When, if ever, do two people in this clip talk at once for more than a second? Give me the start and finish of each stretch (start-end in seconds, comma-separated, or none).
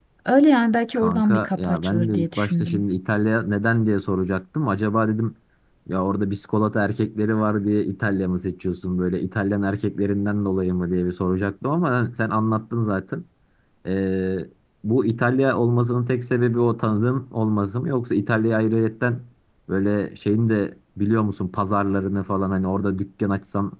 0.9-2.8